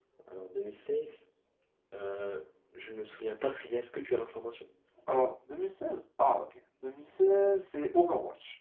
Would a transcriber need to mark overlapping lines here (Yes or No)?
No